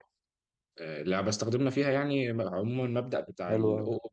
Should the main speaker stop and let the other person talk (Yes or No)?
No